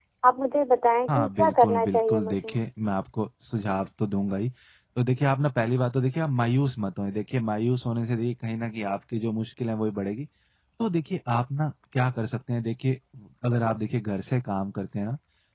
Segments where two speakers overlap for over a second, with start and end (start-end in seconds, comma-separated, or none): 1.1-2.5